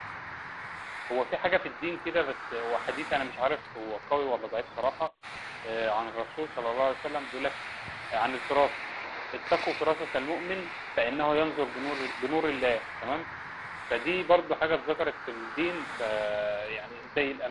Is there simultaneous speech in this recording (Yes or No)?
No